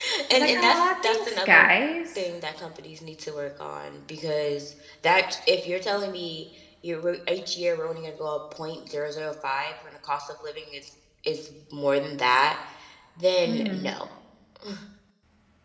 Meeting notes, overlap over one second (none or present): present